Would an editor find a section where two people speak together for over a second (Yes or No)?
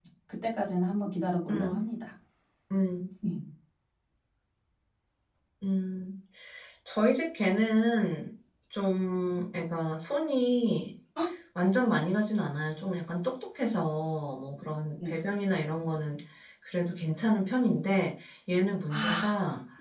No